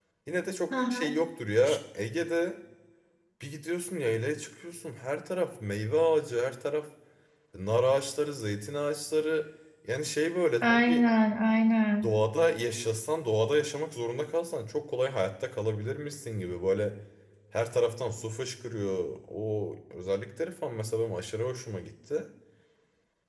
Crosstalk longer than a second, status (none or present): none